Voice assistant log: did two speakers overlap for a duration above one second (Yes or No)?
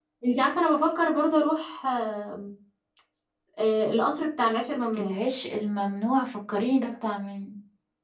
No